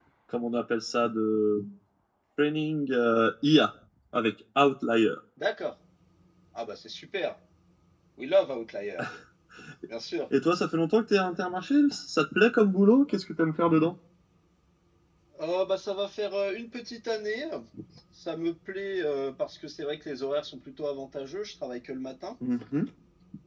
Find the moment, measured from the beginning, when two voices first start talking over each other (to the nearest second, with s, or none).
none